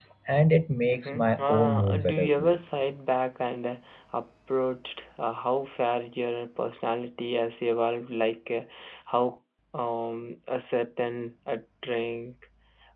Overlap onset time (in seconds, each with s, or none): 0.9 s